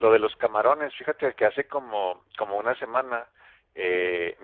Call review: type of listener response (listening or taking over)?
listening